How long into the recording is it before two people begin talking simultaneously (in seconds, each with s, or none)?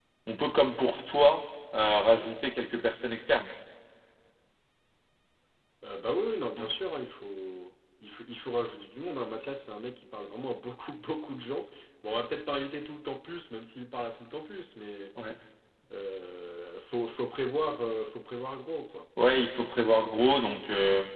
none